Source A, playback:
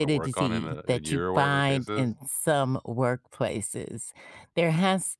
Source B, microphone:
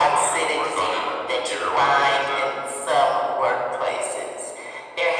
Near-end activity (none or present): none